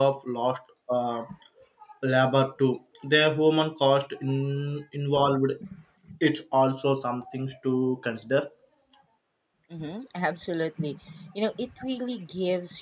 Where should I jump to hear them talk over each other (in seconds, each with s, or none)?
none